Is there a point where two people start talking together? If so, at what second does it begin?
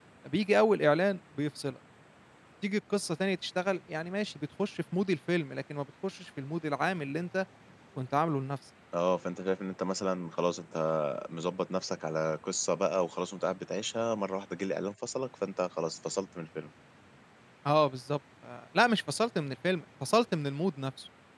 none

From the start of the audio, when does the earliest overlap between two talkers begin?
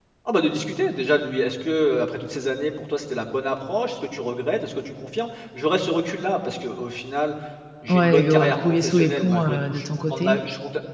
7.9 s

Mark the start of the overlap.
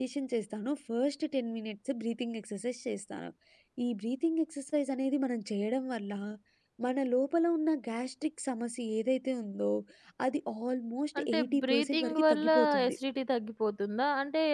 11.2 s

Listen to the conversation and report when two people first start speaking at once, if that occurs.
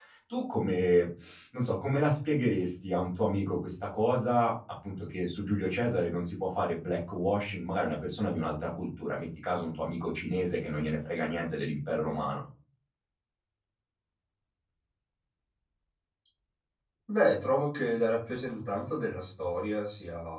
none

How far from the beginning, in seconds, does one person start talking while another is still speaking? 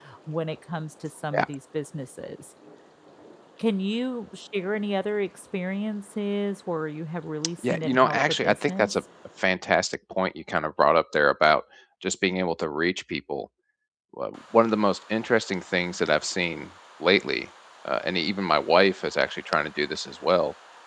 7.6 s

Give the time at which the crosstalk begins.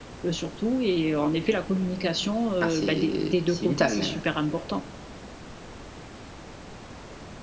2.6 s

